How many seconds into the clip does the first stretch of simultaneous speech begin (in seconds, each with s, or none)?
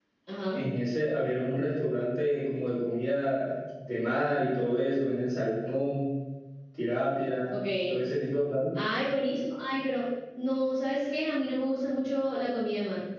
none